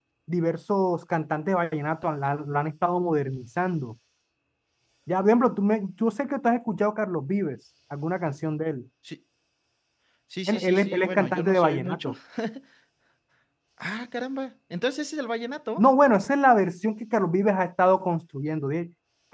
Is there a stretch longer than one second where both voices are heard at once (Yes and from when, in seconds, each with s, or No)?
Yes, from 10.5 s